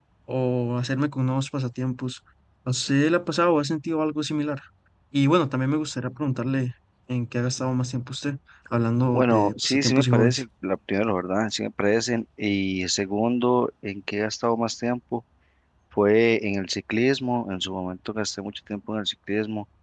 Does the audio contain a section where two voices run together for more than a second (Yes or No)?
Yes